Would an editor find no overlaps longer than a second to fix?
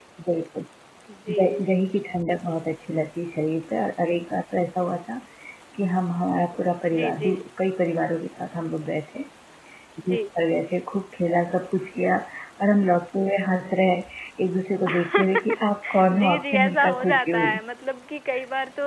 No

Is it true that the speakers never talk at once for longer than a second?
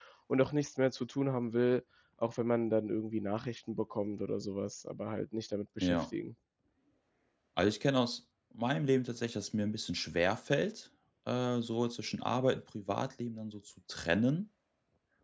Yes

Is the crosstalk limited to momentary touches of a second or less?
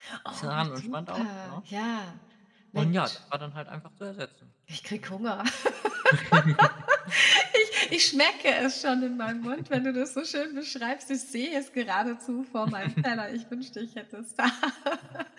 No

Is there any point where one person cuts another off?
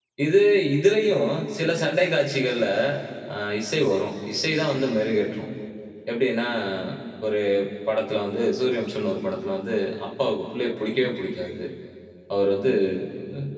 No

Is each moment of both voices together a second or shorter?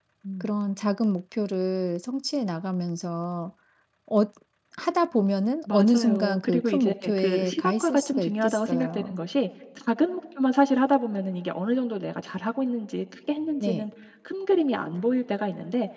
No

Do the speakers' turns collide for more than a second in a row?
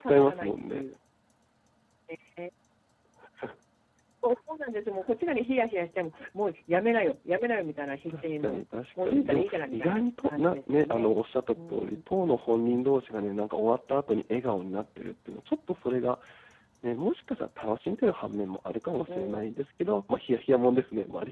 Yes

